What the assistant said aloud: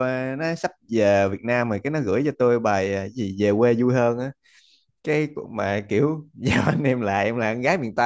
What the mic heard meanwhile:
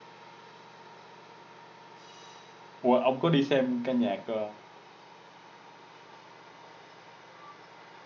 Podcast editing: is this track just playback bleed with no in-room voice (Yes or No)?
No